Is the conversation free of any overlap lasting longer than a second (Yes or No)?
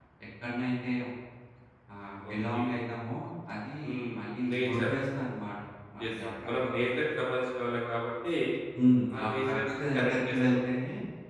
No